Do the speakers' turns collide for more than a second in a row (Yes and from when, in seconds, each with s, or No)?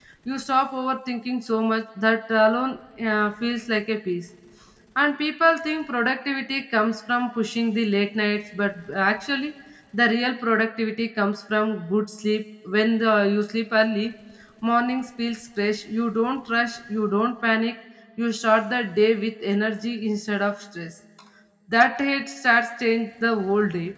No